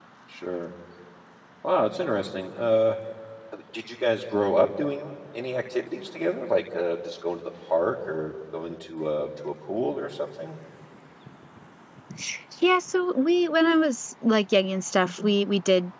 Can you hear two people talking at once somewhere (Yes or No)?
No